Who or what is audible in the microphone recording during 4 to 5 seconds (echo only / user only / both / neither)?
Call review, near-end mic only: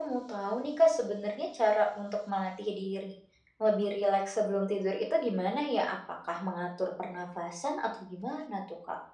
echo only